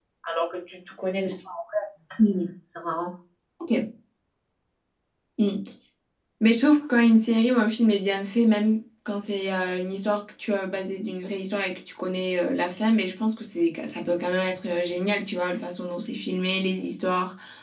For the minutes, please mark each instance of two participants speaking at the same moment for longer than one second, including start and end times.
none

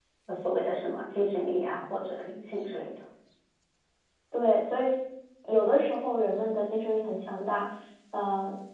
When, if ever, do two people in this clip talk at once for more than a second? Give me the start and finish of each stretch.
none

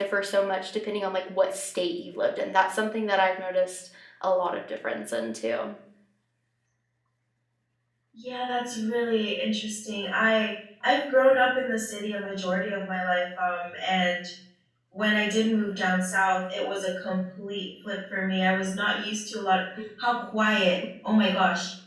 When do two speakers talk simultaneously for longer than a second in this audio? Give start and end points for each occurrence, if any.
none

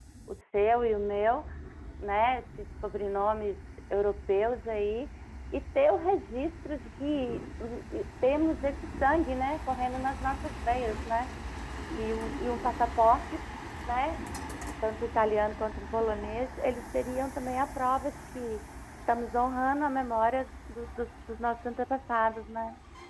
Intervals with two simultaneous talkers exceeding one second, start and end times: none

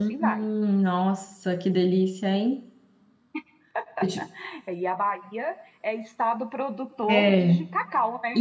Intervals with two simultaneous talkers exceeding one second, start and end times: none

